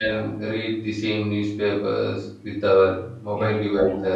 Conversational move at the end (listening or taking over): taking over